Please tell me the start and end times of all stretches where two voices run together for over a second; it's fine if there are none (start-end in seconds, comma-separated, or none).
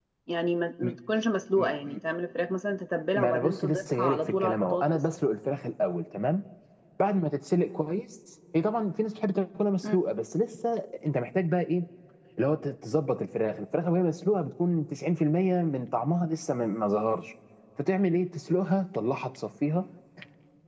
3.2-5.0